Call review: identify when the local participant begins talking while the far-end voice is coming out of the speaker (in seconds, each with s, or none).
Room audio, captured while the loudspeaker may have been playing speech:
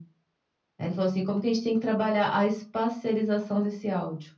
none